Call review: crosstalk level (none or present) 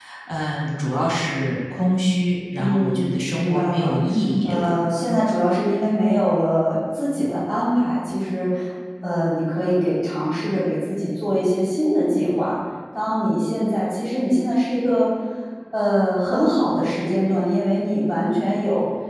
present